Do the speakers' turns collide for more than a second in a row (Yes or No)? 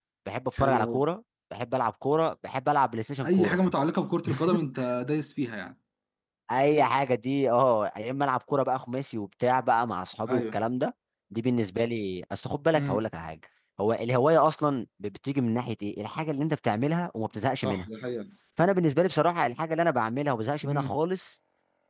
No